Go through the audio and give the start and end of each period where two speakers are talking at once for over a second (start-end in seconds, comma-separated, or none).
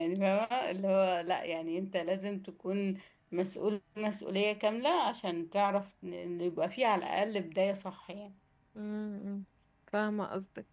none